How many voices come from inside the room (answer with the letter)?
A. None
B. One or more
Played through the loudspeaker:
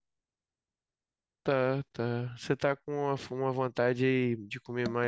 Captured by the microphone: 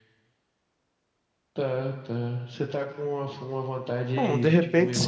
B